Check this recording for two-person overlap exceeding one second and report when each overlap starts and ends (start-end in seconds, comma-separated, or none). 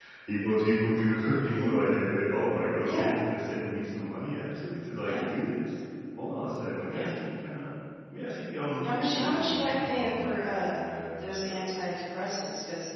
8.8-10.3